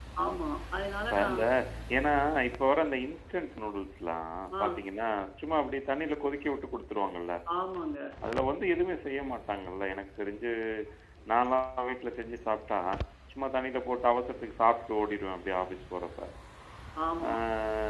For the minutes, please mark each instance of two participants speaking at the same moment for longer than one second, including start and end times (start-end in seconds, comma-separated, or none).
none